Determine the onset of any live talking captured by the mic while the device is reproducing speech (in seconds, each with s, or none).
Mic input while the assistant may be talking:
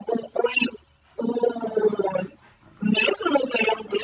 none